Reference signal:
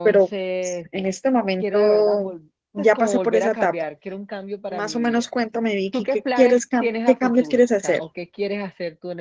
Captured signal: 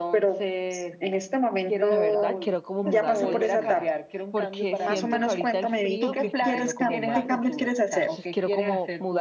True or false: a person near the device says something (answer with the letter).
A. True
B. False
A